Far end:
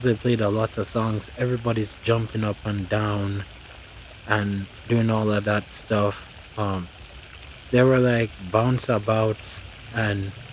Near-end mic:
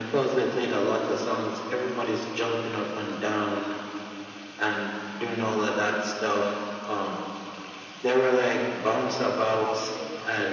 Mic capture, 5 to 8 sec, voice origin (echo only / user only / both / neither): echo only